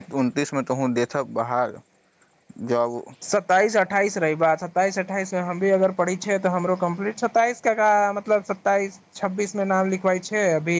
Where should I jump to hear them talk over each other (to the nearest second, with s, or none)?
none